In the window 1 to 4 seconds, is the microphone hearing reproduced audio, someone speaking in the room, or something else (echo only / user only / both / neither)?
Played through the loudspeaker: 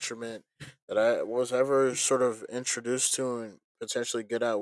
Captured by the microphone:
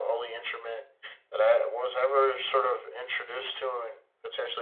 echo only